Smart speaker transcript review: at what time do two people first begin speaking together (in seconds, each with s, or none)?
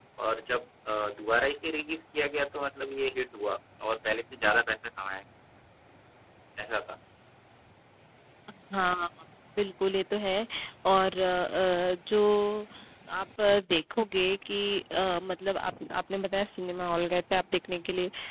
none